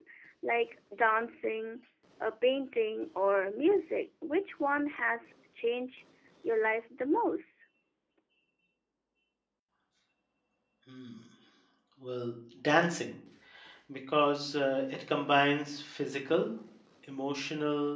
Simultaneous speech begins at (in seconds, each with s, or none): none